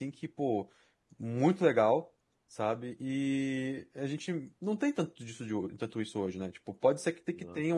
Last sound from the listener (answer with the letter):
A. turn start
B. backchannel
B